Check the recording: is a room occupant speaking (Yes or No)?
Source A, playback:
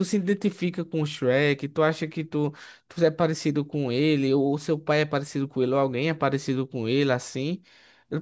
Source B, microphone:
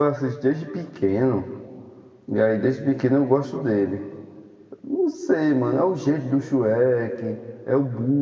Yes